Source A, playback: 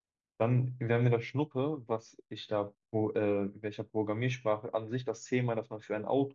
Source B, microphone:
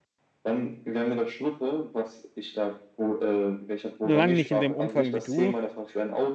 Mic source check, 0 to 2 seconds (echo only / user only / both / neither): echo only